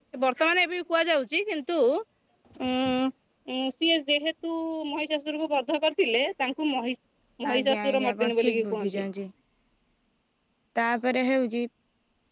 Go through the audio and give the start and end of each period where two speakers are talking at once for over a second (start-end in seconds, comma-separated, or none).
7.5-9.0